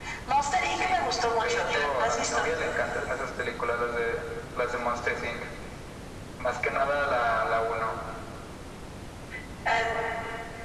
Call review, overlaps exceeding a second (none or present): present